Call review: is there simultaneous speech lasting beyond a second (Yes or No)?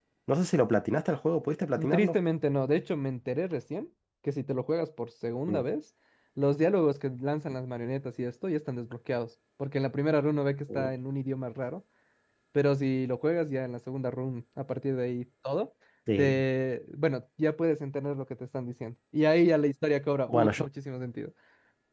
No